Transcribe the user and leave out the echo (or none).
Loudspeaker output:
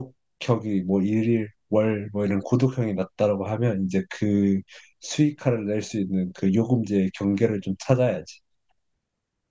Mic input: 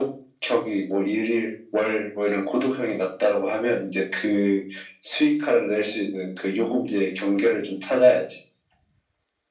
none